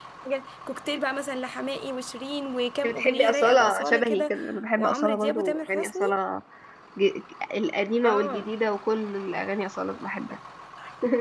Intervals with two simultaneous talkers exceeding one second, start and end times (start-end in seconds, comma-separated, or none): 2.8-4.3, 4.8-6.0